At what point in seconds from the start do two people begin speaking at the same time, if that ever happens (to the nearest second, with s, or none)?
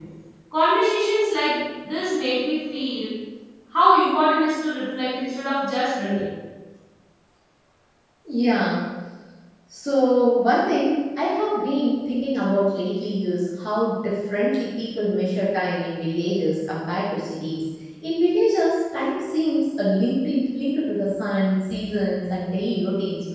none